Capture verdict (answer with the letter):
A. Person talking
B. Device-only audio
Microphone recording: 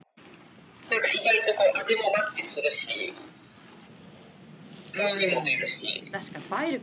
A